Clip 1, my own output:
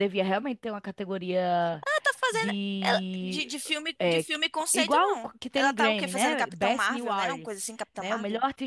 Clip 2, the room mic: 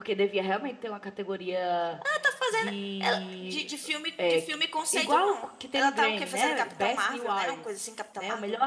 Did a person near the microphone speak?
No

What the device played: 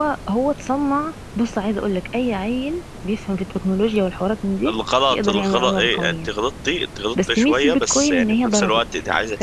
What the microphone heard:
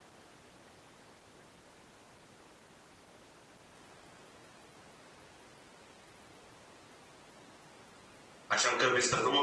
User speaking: Yes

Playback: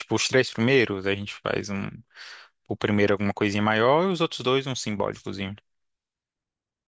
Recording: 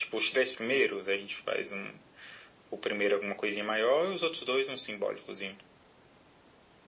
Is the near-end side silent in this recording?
Yes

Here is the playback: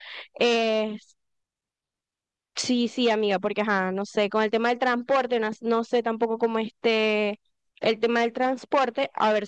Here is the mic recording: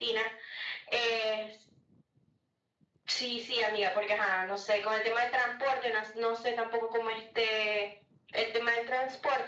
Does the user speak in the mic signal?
No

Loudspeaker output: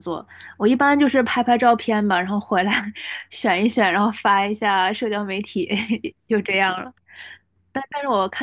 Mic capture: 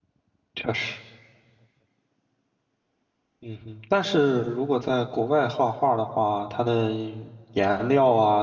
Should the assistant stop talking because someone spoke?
Yes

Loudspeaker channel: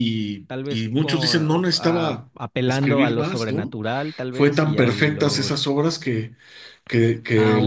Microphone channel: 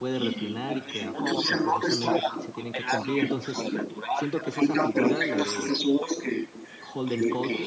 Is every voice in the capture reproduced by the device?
No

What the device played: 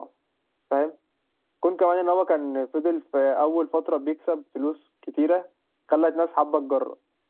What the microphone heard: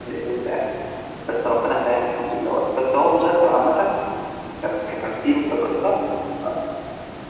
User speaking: Yes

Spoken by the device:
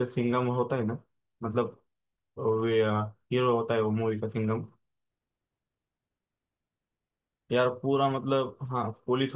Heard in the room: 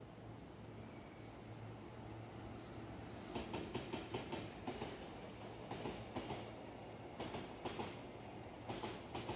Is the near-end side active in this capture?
No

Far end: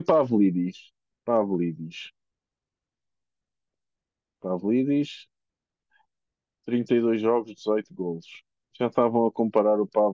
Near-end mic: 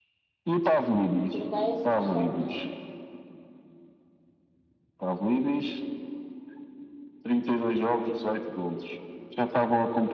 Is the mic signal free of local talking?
No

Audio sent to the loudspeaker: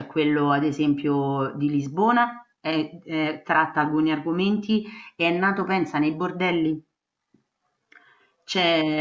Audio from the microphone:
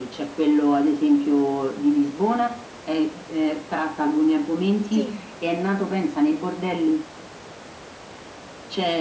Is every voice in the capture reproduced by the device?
No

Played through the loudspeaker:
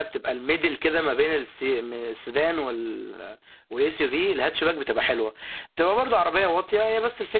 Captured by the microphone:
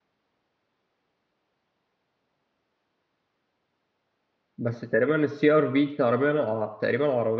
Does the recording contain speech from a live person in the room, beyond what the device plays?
Yes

